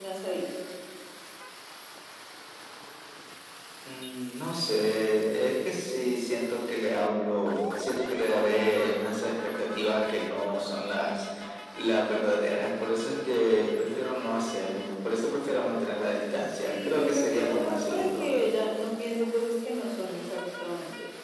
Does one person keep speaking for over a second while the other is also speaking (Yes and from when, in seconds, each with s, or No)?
Yes, from 16.7 s